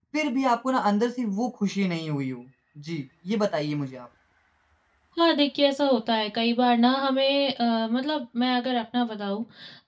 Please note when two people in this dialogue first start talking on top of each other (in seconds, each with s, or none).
none